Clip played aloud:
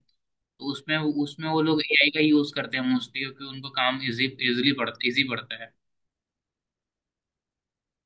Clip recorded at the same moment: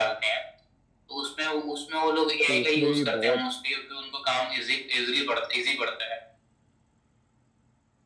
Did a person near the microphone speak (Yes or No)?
Yes